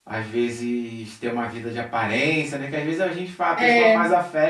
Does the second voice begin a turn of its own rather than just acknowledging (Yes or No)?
No